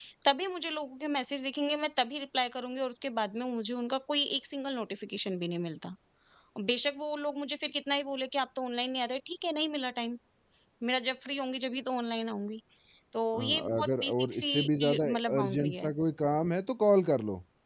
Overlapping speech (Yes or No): Yes